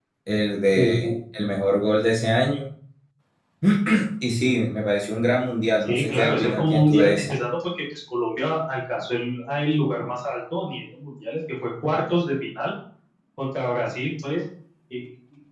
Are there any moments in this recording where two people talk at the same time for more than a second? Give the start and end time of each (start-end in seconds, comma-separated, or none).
5.8-7.3